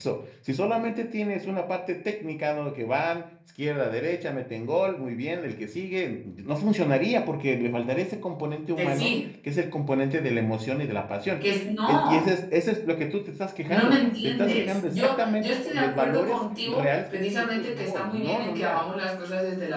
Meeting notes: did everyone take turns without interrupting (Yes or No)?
No